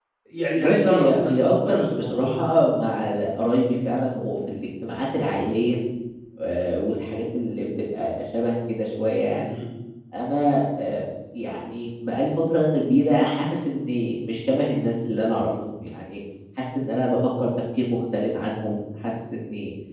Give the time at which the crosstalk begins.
0.6 s

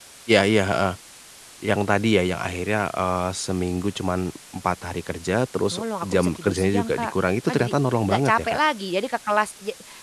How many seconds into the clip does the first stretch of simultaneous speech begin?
5.7 s

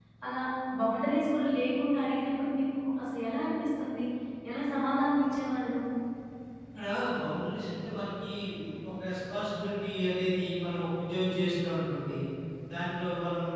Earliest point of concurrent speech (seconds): none

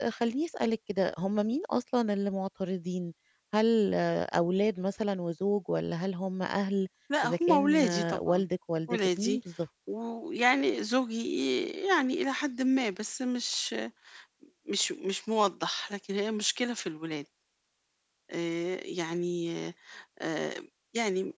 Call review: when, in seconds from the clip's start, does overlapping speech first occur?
7.2 s

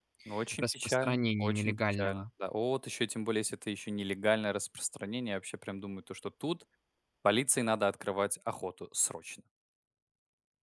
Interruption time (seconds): 0.6 s

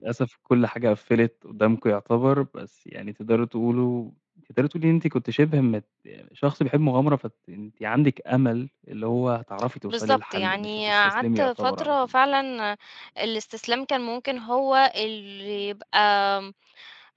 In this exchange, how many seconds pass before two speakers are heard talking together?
9.9 s

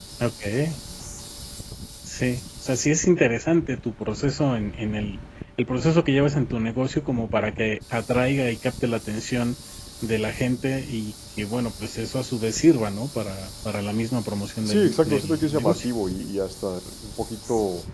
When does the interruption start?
14.6 s

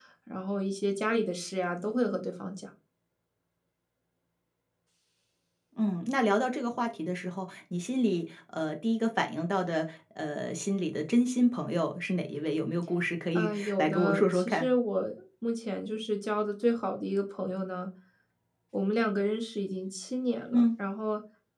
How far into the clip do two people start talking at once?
13.4 s

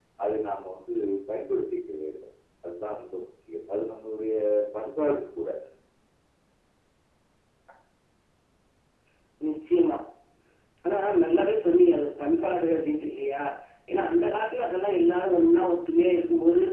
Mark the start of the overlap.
none

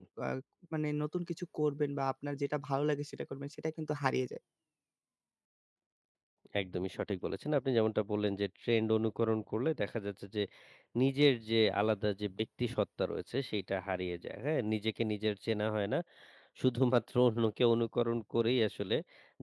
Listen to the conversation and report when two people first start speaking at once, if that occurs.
none

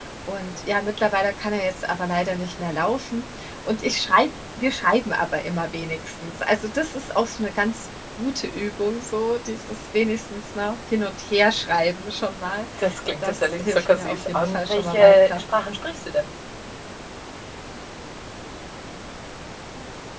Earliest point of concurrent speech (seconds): 13.2 s

